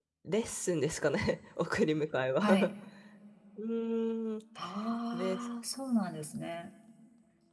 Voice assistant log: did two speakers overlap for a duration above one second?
No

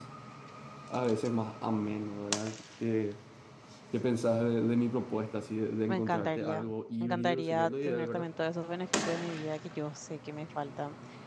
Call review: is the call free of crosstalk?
No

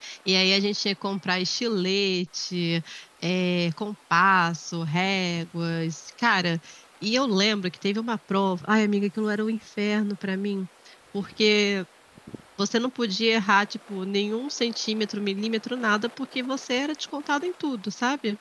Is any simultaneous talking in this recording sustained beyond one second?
No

